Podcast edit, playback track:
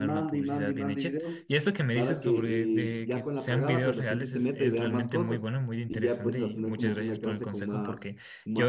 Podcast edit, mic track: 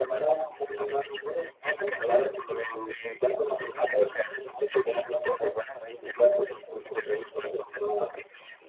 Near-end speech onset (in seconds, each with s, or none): none